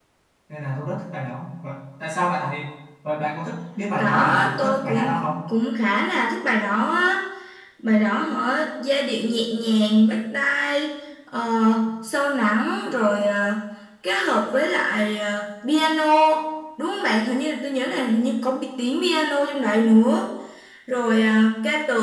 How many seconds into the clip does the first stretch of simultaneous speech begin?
4 s

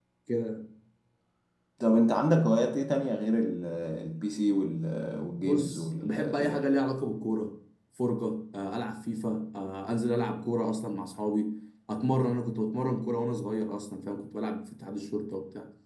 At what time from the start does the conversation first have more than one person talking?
5 s

